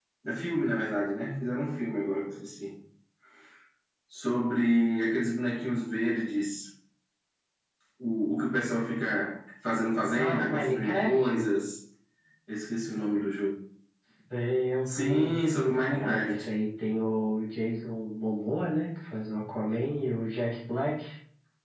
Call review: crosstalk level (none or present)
present